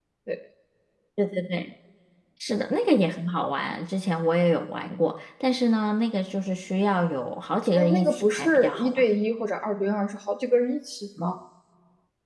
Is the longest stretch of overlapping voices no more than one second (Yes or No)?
No